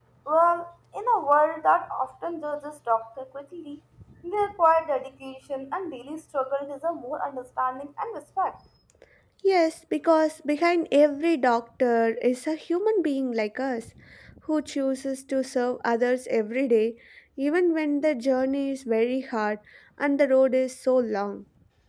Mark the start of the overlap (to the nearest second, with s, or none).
none